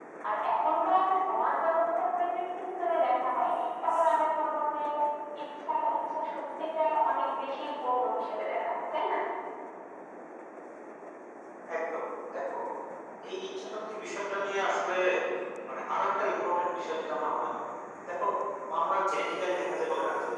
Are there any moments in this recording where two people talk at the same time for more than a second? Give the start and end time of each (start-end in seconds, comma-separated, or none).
none